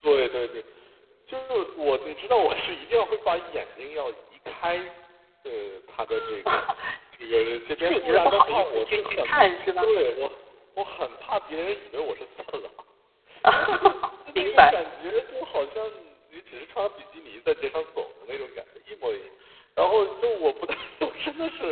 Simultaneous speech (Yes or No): Yes